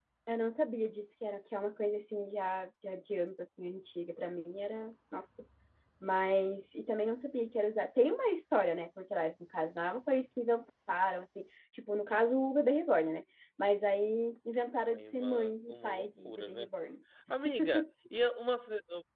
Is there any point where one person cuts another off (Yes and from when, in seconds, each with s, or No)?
Yes, from 14.8 s